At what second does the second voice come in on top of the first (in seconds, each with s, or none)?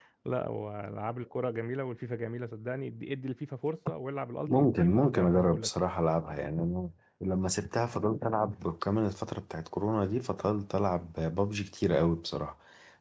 4.5 s